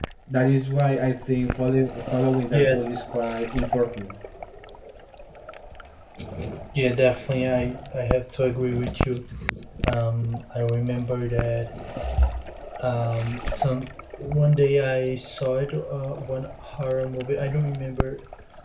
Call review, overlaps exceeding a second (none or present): none